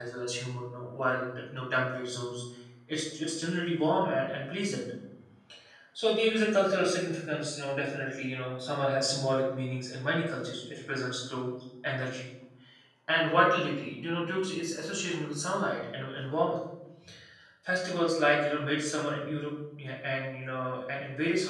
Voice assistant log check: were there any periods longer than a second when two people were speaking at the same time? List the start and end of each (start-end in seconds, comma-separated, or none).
none